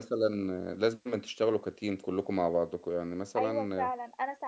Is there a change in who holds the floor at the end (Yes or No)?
Yes